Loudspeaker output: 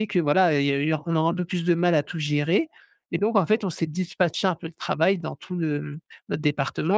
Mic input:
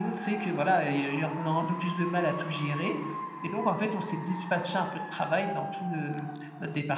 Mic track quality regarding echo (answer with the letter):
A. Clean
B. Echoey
B